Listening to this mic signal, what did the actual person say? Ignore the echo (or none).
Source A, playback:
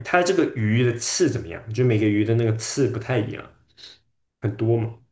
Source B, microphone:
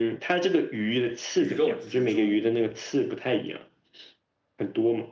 鱼肉之中。